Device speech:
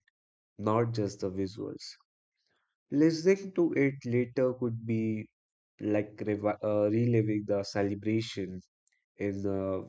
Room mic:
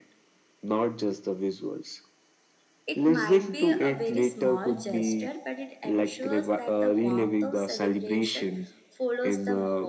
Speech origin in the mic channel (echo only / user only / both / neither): both